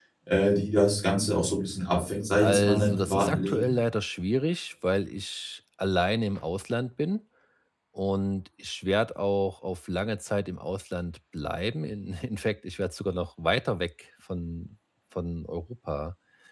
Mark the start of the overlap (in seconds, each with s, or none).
2.4 s